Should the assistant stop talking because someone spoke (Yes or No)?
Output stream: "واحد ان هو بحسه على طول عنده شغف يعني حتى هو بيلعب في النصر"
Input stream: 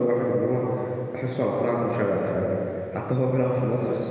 No